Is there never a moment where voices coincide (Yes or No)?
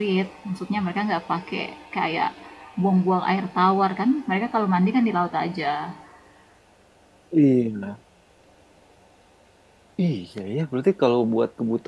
Yes